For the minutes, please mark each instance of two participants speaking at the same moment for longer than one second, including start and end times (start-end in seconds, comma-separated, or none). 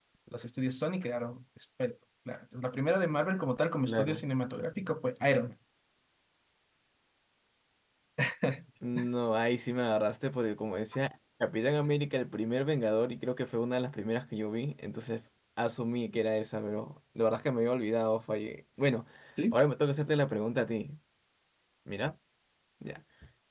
none